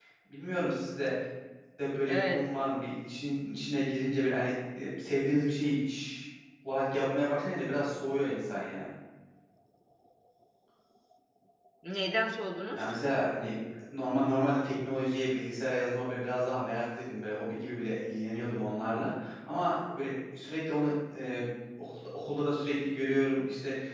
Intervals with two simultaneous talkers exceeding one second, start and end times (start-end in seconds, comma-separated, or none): none